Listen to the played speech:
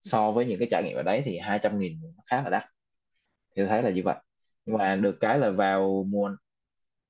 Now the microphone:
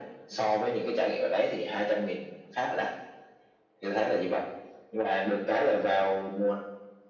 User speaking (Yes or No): No